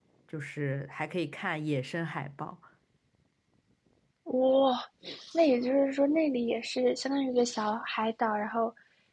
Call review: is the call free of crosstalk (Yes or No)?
Yes